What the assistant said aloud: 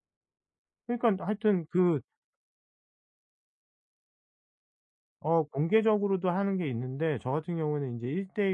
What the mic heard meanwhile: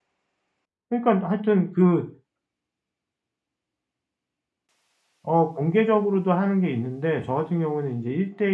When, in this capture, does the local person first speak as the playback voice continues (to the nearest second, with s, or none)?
none